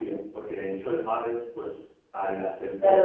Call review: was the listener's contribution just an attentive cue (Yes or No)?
No